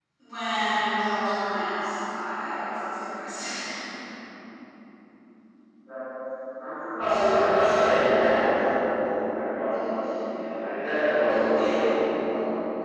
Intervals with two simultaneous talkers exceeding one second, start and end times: none

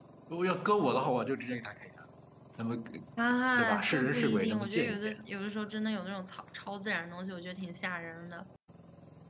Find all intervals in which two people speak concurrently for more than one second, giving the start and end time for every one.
3.5-5.1

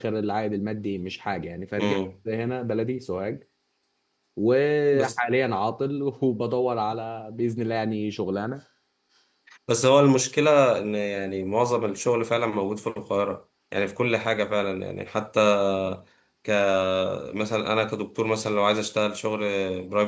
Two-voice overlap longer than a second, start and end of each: none

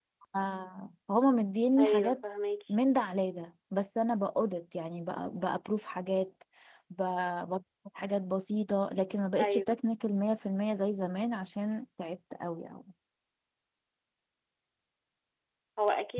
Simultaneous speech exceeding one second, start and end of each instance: none

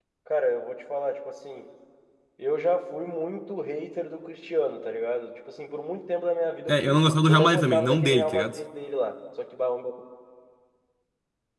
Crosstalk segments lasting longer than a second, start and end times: 6.7-8.6

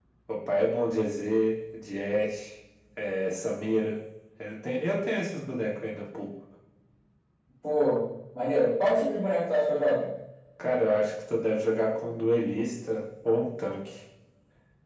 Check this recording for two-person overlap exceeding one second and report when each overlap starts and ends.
none

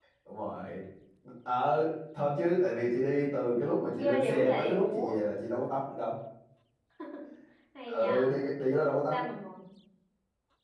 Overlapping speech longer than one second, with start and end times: 3.9-5.2

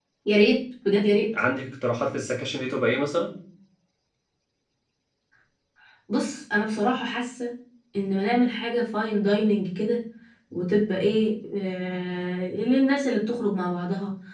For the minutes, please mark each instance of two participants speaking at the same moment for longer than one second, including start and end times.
none

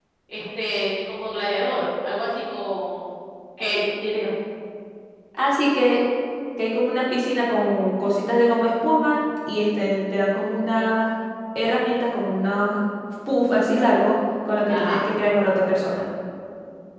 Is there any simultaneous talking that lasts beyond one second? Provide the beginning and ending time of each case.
none

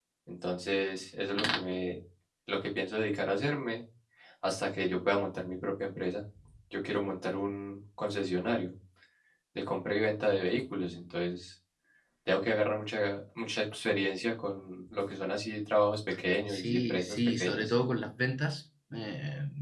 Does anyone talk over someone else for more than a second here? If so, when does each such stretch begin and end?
16.5-17.7

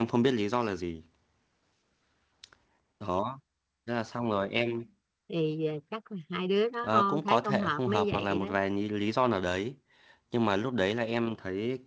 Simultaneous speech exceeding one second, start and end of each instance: 6.8-8.5

